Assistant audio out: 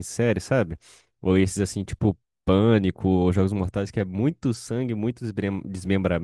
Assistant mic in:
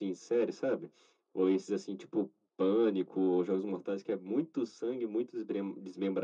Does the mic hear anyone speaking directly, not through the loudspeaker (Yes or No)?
No